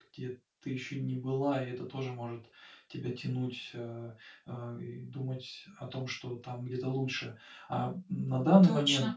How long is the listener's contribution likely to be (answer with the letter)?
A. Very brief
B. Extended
A